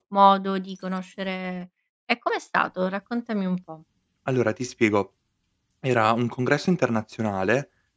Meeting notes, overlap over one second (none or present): none